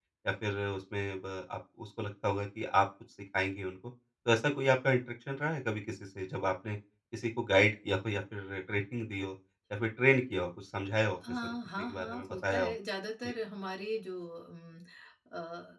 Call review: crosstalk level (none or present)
present